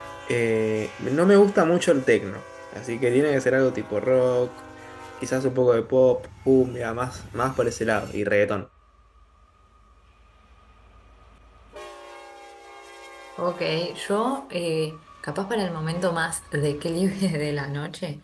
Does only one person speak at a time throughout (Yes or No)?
Yes